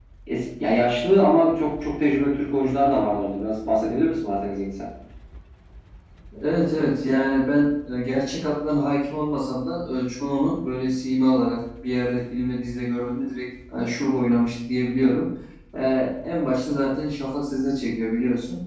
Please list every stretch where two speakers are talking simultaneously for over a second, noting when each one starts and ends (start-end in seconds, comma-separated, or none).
none